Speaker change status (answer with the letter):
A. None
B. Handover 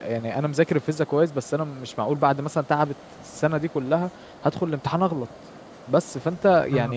A